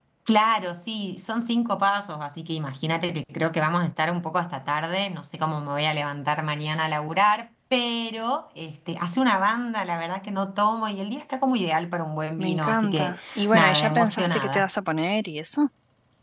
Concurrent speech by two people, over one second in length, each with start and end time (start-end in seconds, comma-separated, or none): 12.4-14.7